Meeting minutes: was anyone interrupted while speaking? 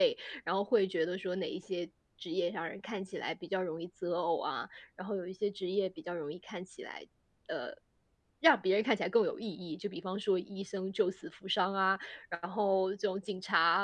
No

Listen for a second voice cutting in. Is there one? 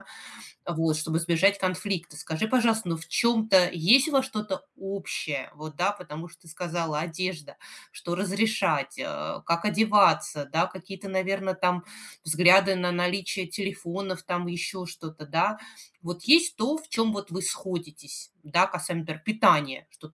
No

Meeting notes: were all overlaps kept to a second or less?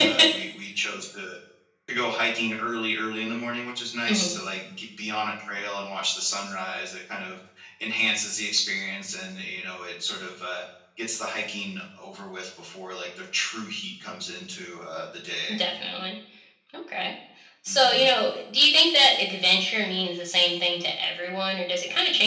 Yes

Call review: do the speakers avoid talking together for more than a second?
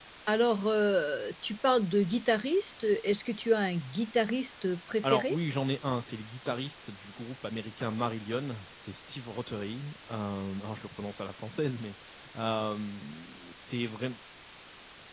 Yes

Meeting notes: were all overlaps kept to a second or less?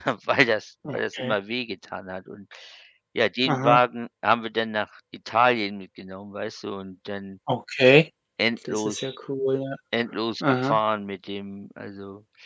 Yes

